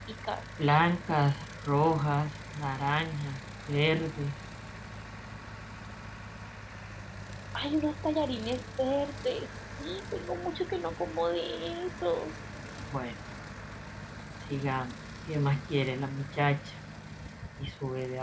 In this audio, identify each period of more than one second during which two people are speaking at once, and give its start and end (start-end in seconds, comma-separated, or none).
none